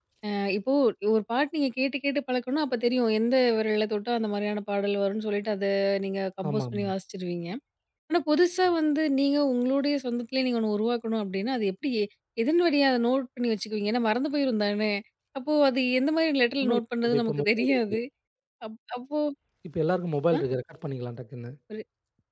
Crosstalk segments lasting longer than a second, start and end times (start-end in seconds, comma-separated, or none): 16.6-18.0